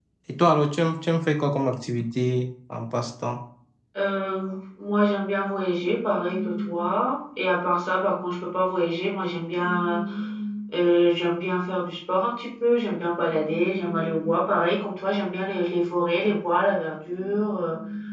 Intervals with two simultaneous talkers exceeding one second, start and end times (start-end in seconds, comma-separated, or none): none